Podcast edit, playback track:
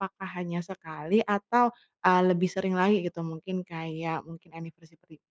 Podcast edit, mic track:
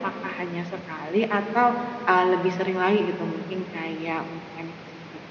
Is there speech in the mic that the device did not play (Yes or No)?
No